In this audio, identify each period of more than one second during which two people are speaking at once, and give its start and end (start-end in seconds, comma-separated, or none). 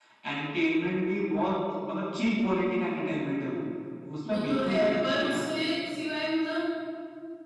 4.3-5.5